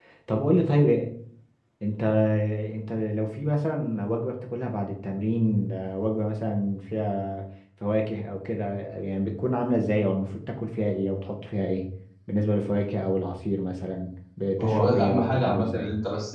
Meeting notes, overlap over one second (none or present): present